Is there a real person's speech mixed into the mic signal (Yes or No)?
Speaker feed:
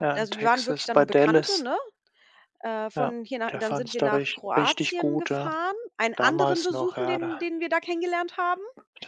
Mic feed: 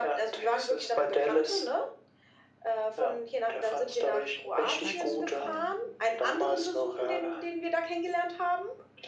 Yes